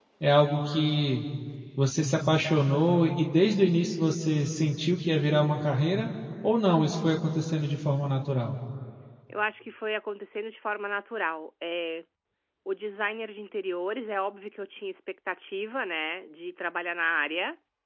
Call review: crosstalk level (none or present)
none